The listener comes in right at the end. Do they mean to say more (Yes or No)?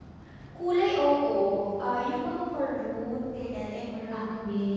Yes